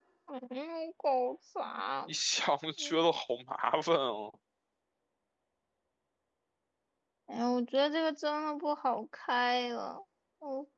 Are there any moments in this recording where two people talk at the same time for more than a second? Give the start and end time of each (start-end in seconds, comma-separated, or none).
none